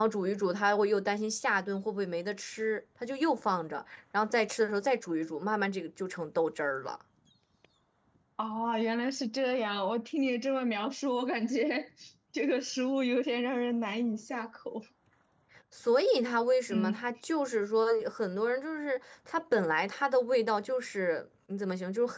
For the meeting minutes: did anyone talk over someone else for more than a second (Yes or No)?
No